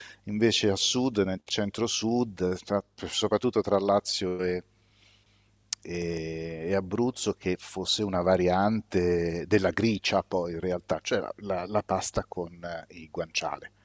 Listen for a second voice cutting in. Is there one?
No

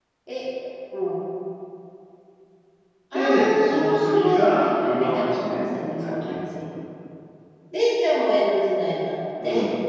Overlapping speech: Yes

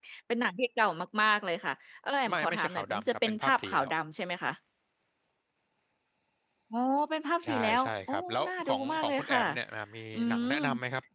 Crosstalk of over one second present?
Yes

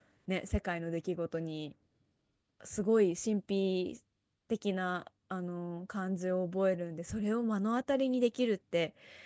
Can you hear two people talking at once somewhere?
No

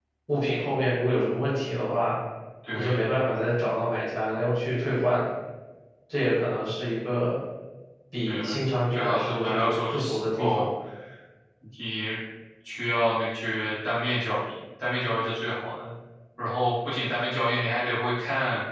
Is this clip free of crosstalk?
No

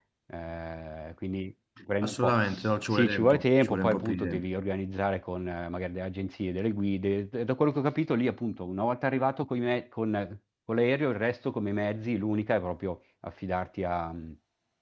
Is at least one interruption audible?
Yes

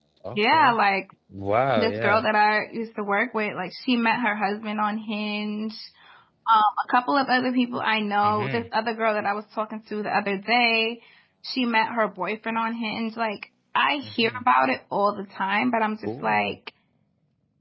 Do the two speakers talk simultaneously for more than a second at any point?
No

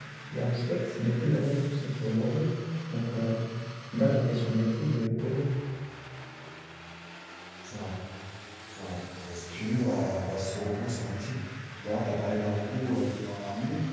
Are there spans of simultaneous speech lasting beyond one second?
No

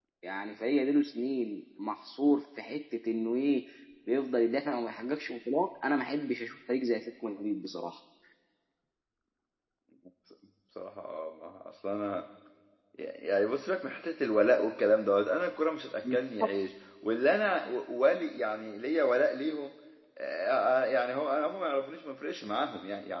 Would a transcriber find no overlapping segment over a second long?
Yes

